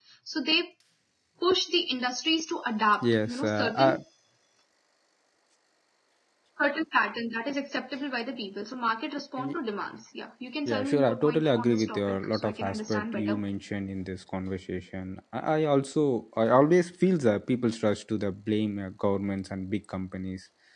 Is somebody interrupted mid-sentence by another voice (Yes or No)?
Yes